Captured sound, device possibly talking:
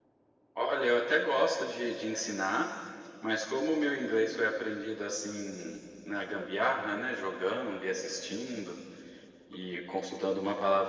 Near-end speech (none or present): none